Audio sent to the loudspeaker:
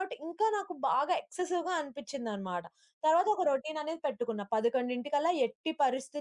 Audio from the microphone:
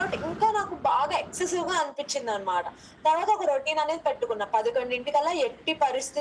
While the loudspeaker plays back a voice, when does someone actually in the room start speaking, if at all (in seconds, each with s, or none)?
none